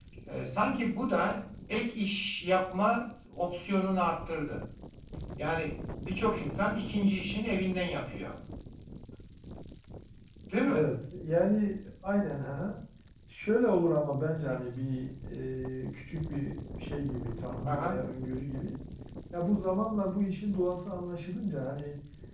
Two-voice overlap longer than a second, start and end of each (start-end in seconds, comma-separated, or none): none